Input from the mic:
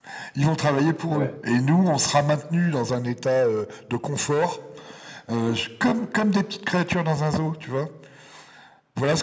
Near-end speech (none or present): present